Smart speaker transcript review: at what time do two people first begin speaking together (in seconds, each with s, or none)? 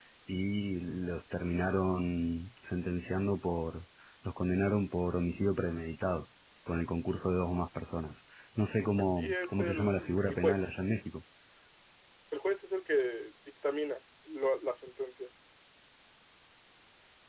9.2 s